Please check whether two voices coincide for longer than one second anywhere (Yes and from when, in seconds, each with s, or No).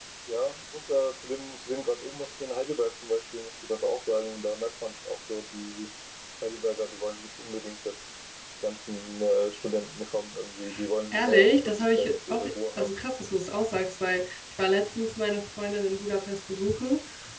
Yes, from 11.1 s